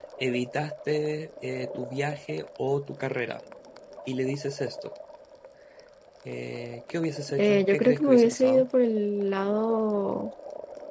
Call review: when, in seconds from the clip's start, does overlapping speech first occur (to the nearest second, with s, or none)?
7 s